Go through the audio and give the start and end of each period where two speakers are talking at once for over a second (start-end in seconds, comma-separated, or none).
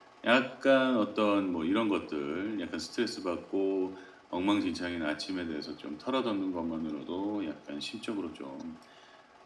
none